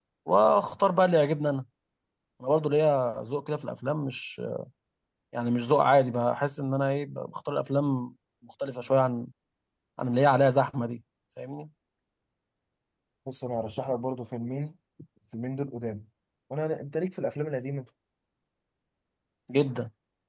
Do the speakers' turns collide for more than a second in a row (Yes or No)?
No